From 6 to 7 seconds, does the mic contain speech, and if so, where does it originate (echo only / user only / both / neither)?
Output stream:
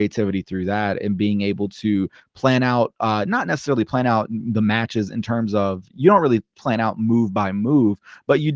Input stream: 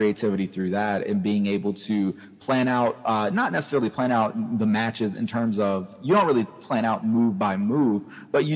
echo only